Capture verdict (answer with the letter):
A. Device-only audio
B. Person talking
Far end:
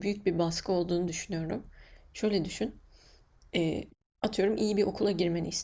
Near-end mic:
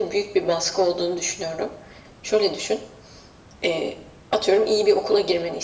A